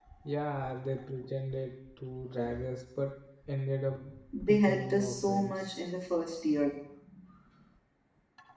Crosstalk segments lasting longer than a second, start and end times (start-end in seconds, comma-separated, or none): 4.5-5.8